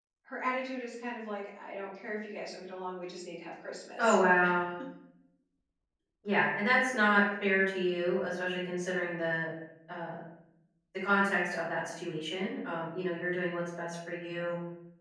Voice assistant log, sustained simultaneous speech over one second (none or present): none